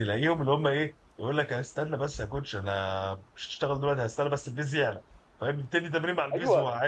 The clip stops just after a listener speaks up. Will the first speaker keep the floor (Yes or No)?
No